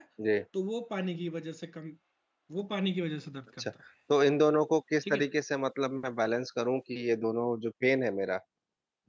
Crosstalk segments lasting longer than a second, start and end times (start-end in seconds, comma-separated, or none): none